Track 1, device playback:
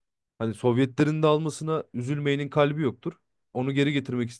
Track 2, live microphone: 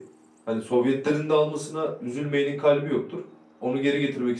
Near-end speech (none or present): none